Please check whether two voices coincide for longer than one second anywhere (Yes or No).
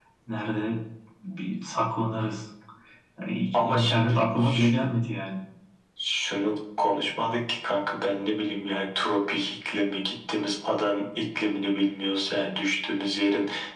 Yes